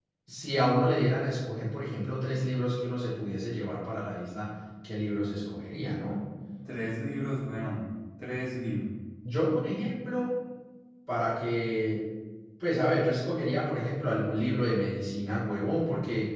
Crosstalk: none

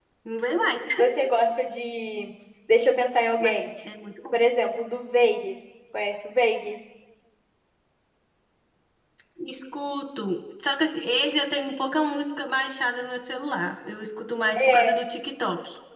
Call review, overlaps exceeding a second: none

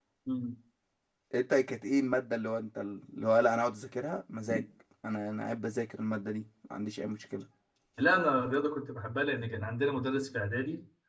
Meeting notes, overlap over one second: none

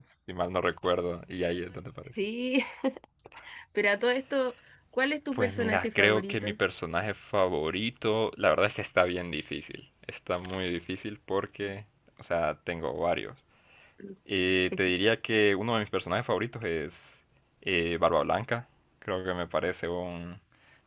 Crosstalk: present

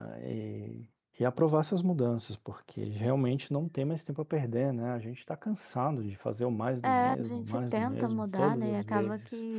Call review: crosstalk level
present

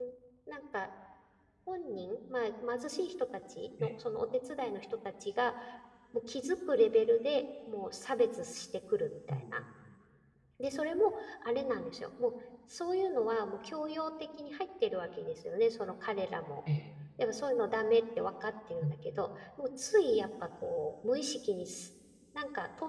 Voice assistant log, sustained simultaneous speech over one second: none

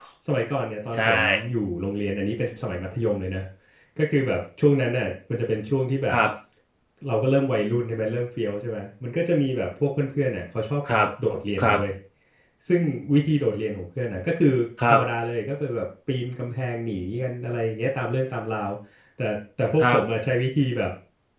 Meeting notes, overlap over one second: none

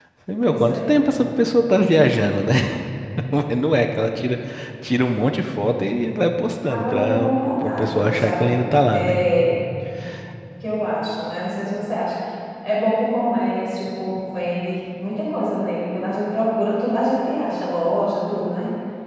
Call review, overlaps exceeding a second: present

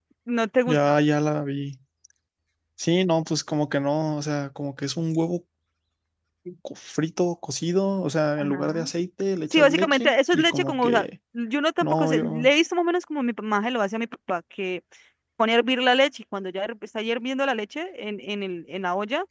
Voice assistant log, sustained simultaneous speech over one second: present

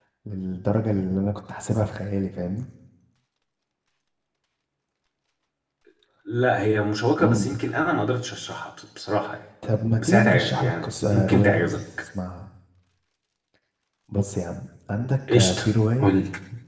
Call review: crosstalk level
present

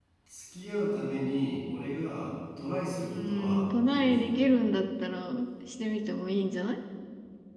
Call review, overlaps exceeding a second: present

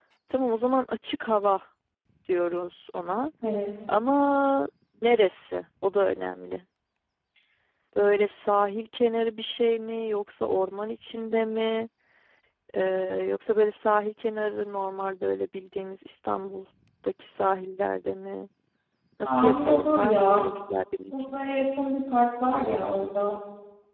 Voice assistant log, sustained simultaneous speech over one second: present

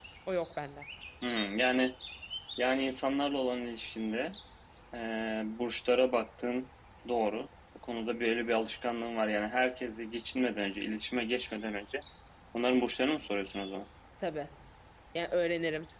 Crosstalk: none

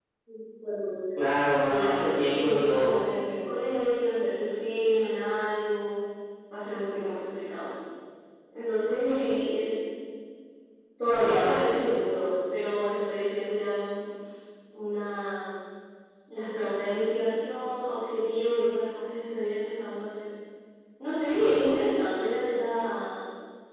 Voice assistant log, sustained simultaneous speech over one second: present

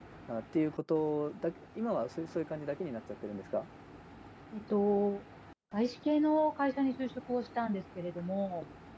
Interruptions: none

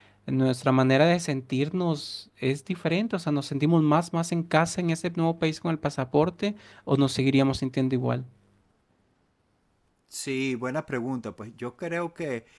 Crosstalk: none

